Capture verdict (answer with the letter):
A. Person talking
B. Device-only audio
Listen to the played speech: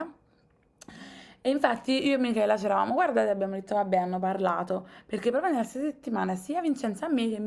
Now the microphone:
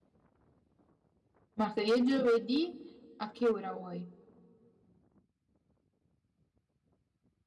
A